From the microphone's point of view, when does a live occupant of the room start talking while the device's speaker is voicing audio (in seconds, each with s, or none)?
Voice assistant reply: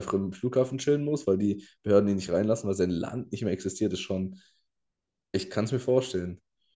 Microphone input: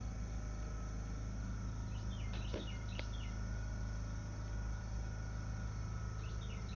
none